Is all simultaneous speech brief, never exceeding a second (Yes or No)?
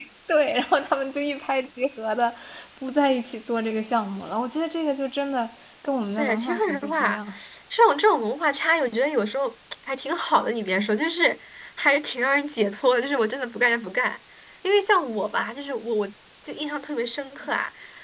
No